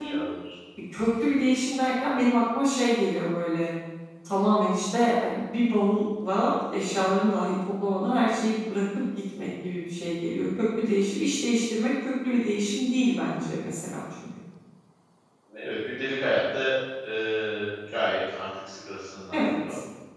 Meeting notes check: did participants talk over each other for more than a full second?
No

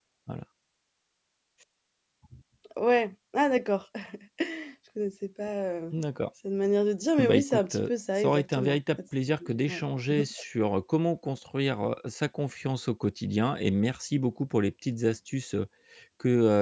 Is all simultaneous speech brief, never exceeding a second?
No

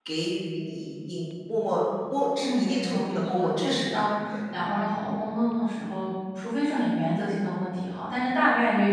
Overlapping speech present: Yes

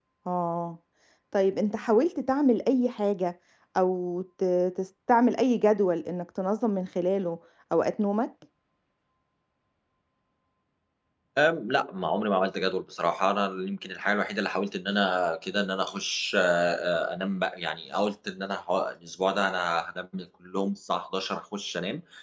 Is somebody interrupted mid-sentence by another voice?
No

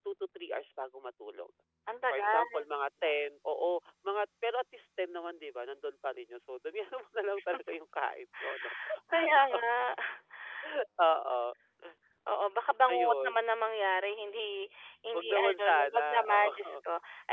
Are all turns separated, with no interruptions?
No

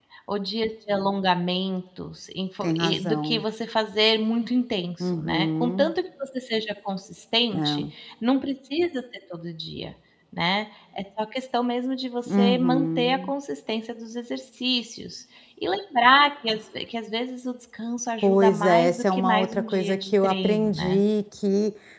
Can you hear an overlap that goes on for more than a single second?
Yes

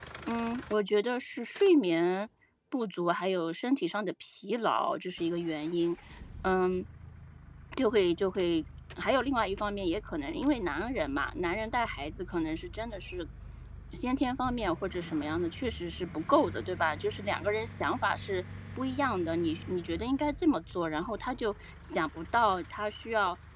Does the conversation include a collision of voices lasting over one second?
No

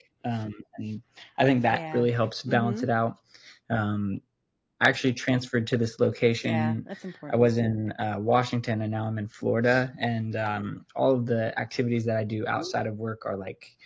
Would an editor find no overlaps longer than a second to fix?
Yes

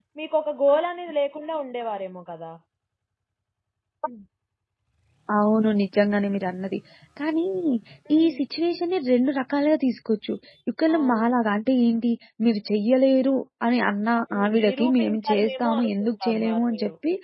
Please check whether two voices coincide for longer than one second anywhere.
Yes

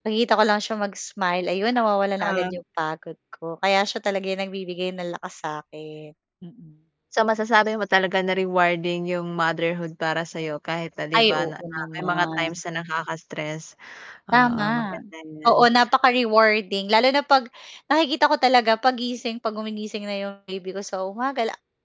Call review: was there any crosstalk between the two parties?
Yes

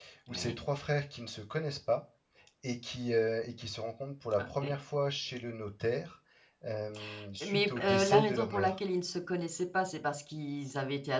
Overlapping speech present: Yes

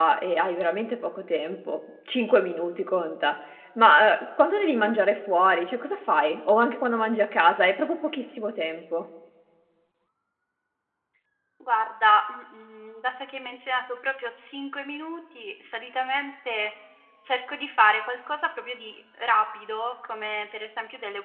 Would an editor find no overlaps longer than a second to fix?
Yes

